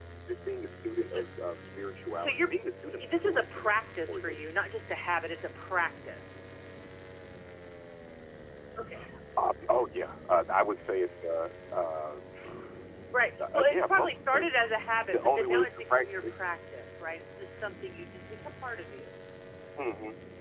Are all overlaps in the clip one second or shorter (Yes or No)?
No